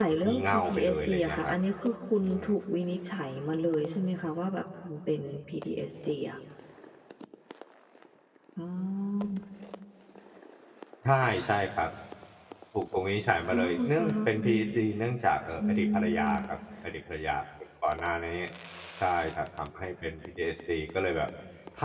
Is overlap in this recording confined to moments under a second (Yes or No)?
No